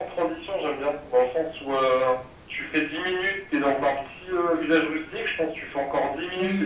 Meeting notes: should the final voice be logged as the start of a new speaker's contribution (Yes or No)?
No